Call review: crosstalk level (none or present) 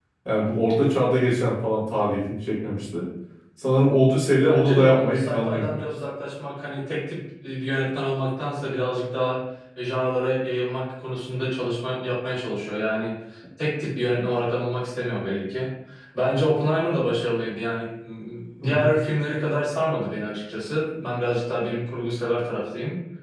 present